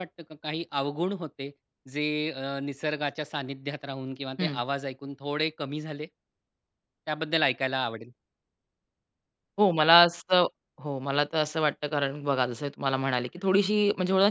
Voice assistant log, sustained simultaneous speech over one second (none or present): none